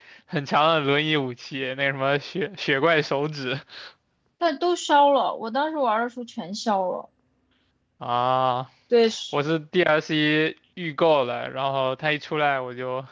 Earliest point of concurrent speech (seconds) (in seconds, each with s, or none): none